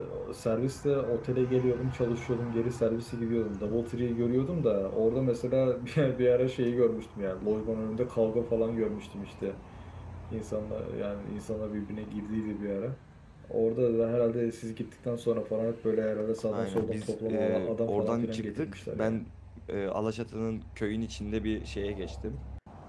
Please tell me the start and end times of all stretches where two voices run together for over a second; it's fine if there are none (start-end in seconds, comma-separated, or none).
16.5-19.2